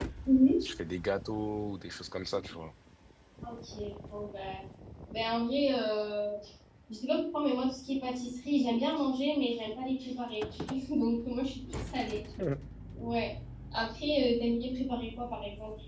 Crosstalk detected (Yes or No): No